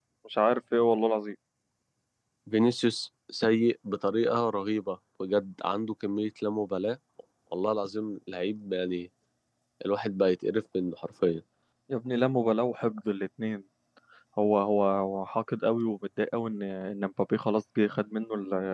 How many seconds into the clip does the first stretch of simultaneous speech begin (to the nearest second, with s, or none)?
none